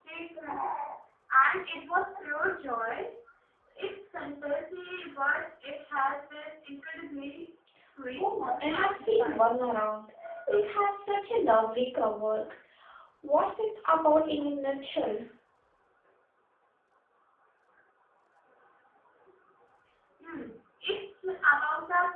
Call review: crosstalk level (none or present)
present